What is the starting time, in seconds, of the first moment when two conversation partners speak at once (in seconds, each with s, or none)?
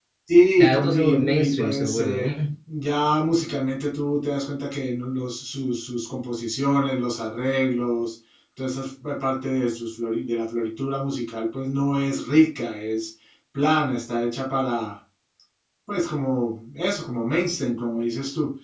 0.6 s